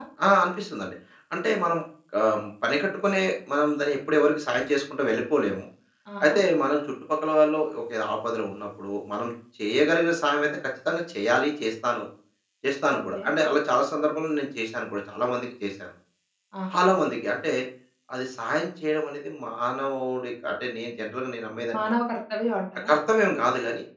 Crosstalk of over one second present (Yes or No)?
No